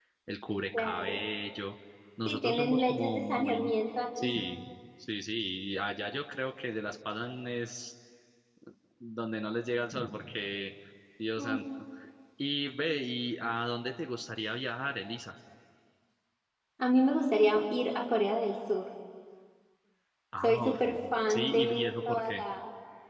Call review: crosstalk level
present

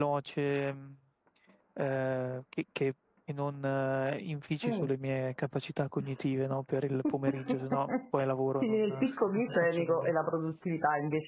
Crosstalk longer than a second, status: present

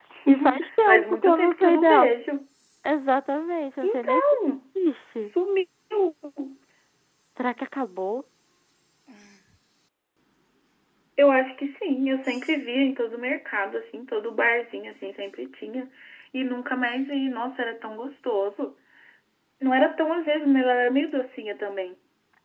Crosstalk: present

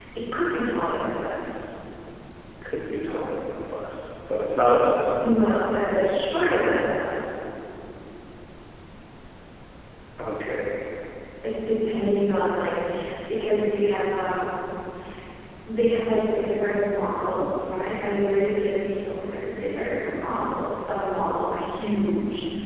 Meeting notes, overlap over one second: none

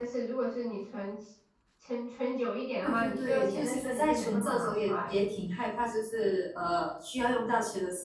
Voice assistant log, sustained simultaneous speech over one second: present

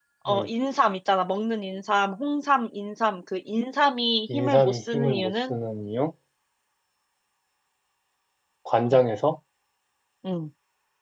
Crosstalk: present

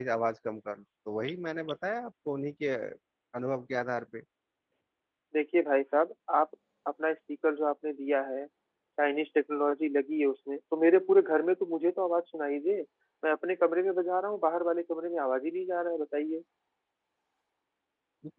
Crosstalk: none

